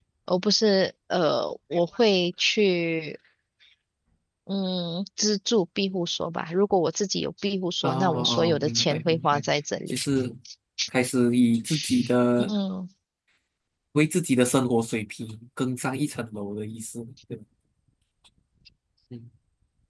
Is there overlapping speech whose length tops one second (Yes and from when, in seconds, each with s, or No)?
Yes, from 7.8 s